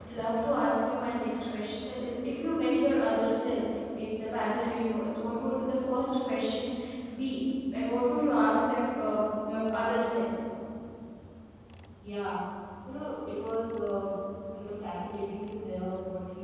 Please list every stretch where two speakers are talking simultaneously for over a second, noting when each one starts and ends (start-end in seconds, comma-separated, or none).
none